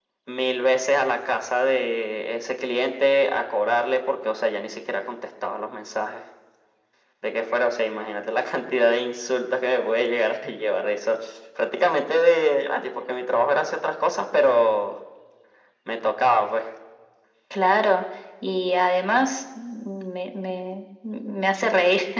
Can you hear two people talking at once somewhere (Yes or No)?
No